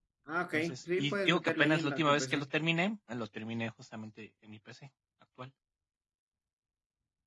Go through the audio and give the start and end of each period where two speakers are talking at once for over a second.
0.5-2.5

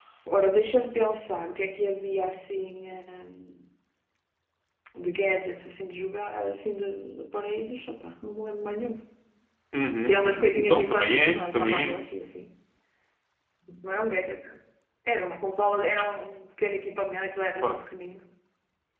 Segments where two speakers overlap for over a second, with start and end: 10.1-12.0

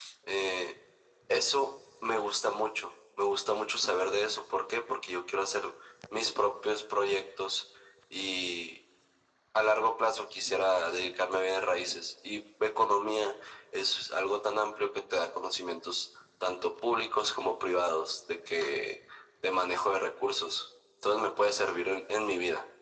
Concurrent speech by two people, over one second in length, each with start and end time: none

